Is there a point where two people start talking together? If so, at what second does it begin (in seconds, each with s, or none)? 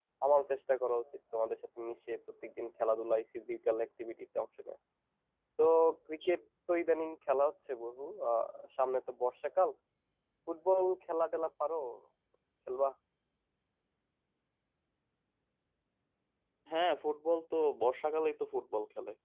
none